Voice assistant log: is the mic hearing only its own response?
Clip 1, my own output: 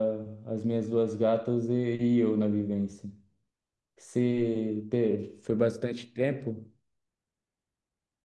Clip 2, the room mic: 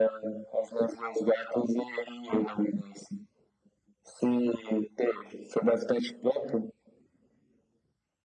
Yes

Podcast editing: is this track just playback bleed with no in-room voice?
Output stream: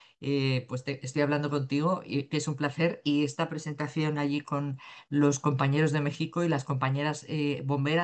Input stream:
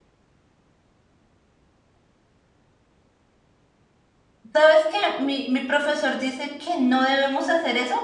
No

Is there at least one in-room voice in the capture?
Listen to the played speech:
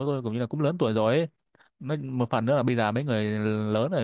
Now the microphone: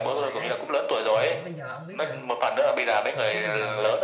Yes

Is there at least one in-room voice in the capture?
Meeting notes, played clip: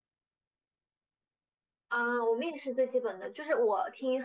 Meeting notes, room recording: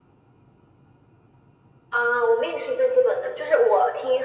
No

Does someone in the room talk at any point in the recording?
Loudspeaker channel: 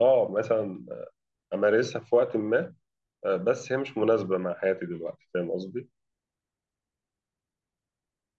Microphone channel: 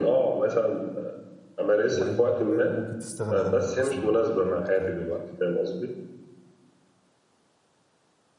Yes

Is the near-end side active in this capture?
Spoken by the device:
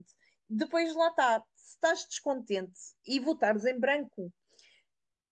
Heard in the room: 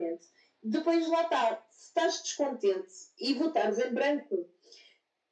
No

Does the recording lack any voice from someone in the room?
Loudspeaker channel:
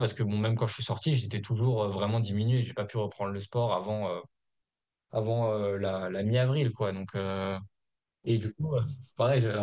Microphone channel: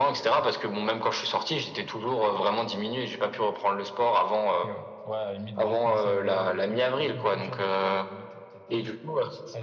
No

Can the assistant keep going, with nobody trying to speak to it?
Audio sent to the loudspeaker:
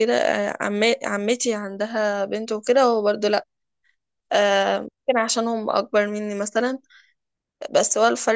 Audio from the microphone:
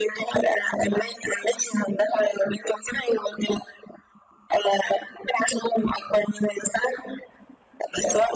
Yes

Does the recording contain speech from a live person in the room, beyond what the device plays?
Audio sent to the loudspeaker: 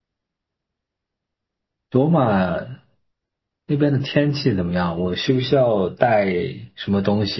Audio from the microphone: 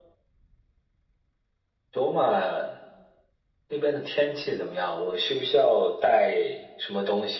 No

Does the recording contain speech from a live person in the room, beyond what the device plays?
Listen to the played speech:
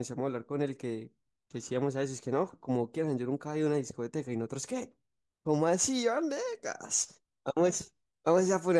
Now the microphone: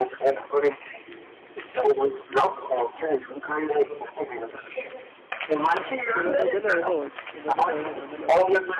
Yes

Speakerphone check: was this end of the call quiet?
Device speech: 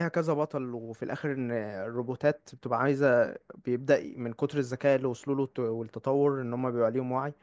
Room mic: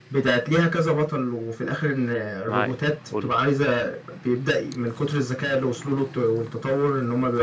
No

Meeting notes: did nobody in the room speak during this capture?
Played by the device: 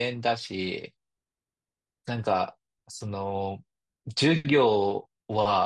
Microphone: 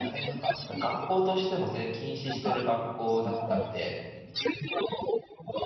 No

